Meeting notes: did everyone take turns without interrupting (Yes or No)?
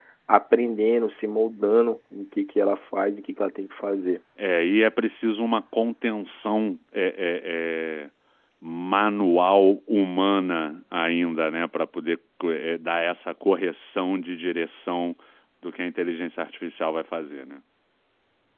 Yes